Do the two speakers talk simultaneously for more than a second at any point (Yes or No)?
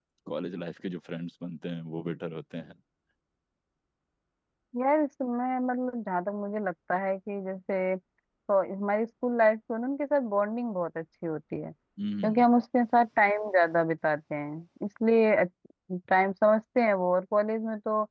No